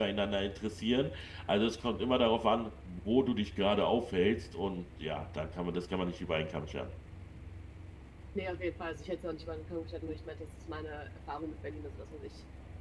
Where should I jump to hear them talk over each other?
none

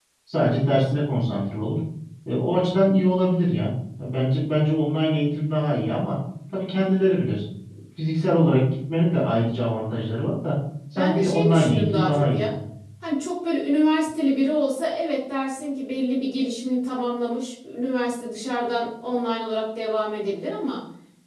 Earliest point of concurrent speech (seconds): 11.0 s

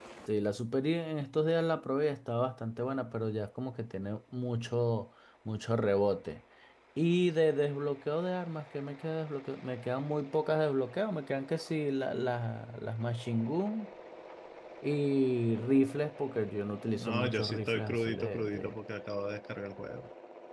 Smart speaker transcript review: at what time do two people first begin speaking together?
17.0 s

